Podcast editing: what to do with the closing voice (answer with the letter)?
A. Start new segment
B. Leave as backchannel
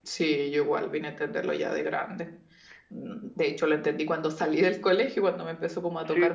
A